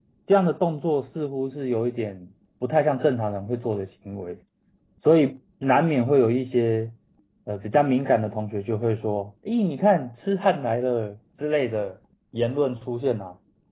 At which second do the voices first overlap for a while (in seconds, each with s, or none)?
none